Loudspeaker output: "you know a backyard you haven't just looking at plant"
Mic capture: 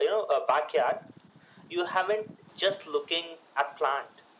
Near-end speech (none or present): none